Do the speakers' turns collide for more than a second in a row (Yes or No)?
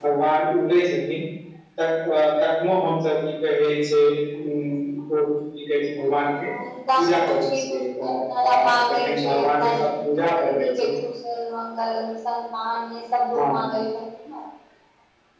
Yes